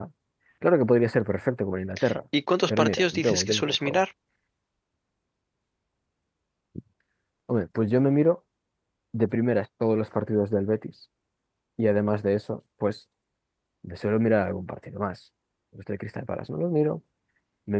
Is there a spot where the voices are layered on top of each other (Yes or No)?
Yes